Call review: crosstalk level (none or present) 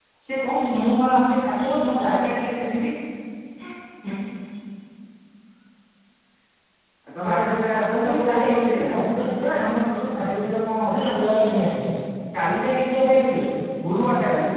present